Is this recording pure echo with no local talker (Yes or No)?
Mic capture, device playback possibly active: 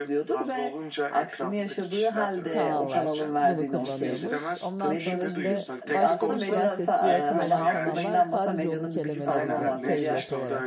No